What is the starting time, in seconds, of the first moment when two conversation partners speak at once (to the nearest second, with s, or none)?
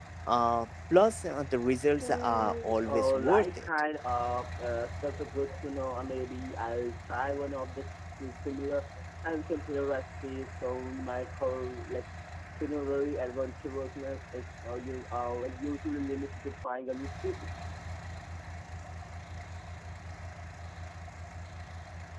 2 s